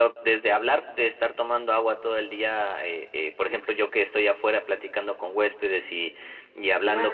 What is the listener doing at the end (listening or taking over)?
listening